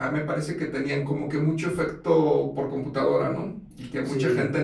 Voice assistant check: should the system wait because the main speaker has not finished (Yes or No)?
No